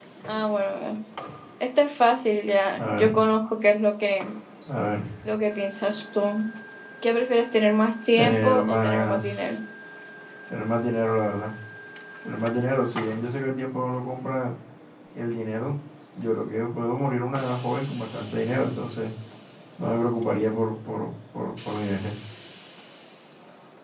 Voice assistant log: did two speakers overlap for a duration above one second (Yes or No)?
Yes